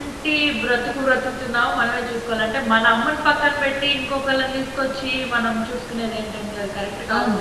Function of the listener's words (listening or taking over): taking over